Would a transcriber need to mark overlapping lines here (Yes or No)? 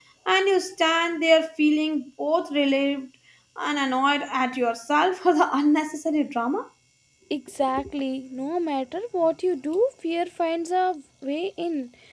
No